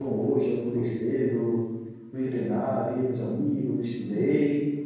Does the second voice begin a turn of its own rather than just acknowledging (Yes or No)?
No